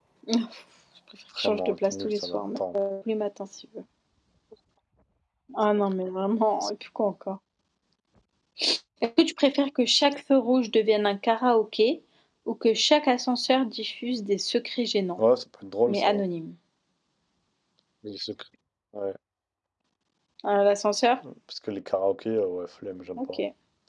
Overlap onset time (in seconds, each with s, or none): 1.4 s